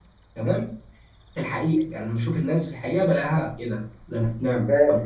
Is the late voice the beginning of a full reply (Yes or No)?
No